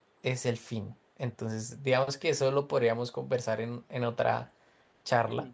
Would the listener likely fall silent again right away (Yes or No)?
No